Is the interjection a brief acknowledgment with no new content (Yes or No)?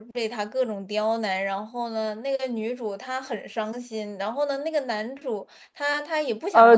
No